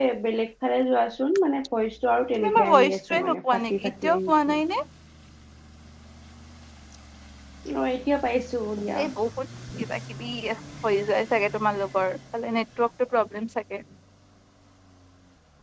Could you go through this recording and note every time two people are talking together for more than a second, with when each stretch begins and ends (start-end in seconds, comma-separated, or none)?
2.4-4.5